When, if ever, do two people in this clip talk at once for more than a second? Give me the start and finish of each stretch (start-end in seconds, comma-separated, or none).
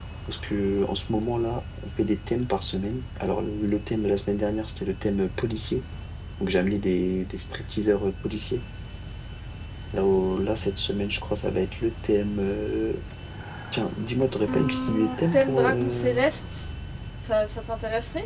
14.5-16.2